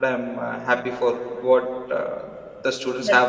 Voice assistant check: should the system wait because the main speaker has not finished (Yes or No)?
Yes